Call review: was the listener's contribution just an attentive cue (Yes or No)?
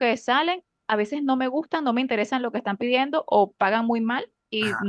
Yes